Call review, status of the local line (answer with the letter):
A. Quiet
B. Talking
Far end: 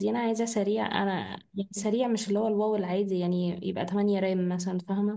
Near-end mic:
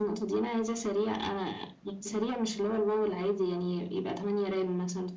A